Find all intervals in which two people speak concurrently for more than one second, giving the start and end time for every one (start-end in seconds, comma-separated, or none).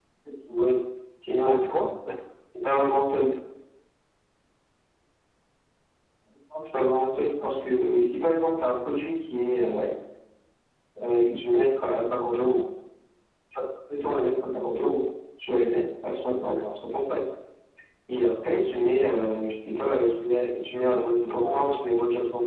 none